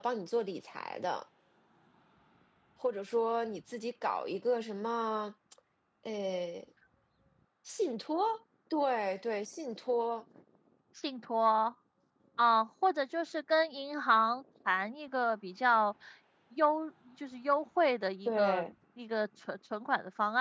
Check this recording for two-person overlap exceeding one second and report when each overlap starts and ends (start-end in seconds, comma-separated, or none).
none